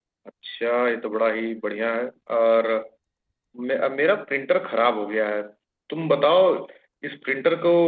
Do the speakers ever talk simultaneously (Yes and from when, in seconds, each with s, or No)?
No